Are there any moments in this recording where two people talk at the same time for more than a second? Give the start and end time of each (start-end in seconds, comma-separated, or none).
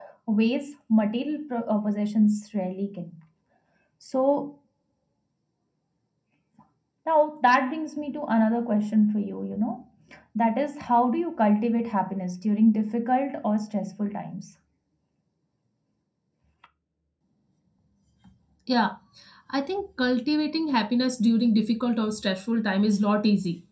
none